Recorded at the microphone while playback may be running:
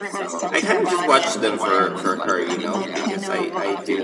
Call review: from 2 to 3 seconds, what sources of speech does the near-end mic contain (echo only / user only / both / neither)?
both